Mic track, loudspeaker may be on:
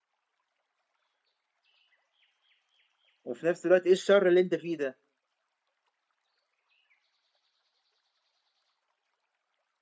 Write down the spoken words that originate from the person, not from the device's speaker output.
وفي نفس الوقت ايه الشر اللي انت فيه ده

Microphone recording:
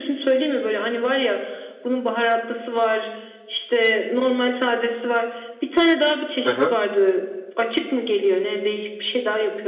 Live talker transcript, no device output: Hı hı.

